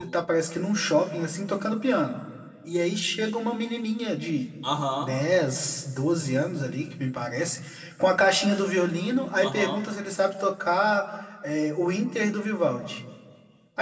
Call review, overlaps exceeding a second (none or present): none